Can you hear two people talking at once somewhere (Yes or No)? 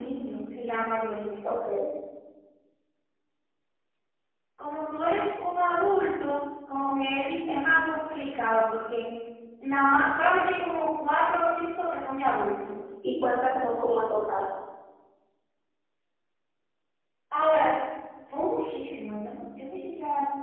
No